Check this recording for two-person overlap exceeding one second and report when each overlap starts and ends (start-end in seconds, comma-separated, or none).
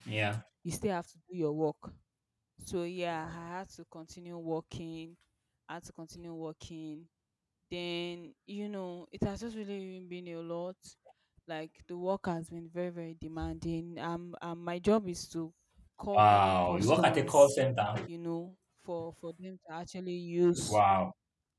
16.1-17.5